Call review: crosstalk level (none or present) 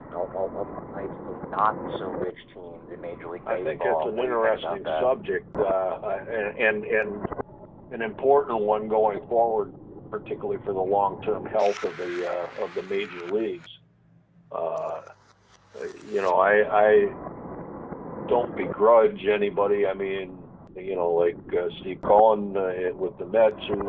present